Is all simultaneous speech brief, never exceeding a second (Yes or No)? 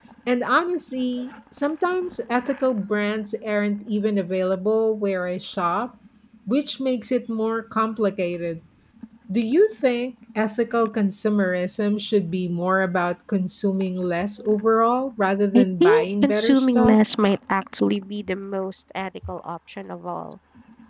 No